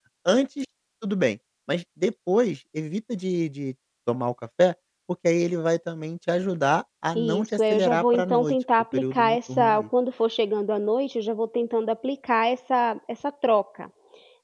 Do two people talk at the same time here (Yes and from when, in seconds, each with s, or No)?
Yes, from 7.2 s